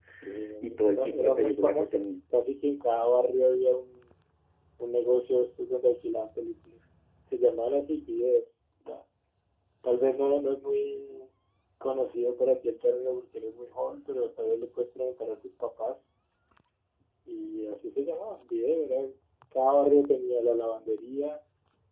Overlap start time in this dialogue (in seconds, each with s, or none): 0.9 s